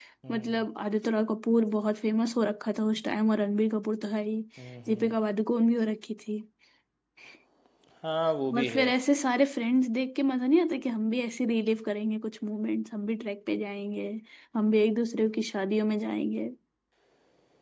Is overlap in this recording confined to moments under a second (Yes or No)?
Yes